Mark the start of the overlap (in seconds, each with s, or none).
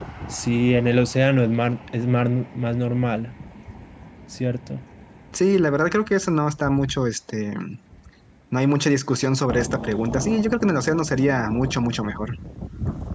none